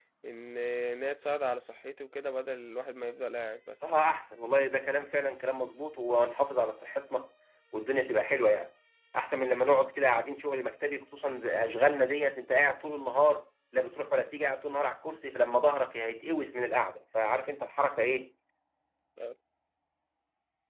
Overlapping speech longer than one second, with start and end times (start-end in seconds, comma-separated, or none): none